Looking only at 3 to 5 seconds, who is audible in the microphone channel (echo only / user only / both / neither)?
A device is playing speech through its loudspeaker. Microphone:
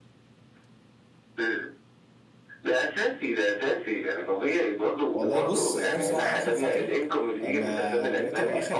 echo only